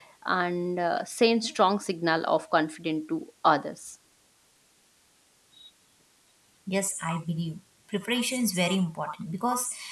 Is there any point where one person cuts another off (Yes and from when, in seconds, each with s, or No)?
No